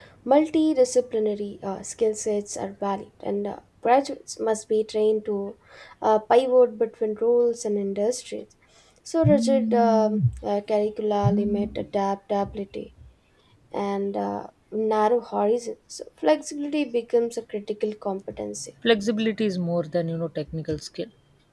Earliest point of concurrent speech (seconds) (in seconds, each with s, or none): none